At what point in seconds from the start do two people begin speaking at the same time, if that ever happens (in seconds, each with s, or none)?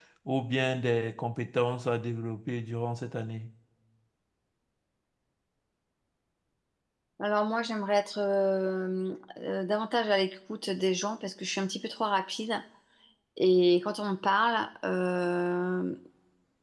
none